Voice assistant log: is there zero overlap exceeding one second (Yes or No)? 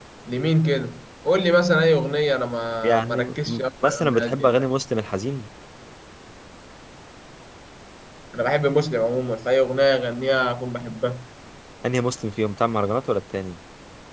No